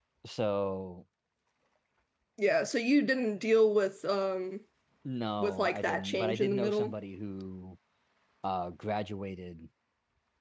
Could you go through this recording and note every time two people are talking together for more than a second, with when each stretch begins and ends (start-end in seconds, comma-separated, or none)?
5.4-6.9